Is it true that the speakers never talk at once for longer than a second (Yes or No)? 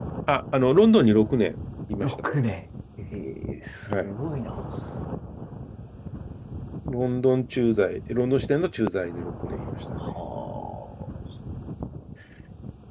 Yes